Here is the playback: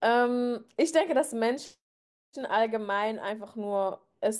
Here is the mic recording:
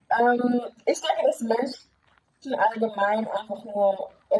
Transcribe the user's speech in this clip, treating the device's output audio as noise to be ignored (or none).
none